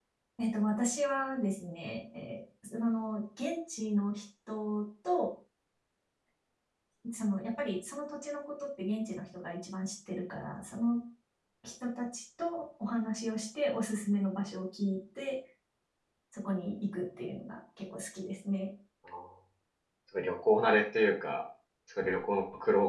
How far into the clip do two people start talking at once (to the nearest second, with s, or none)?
none